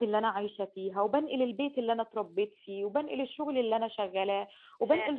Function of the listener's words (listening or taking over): listening